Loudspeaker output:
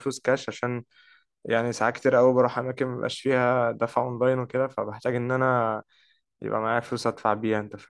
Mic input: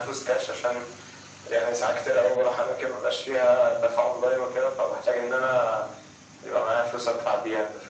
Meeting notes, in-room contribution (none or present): none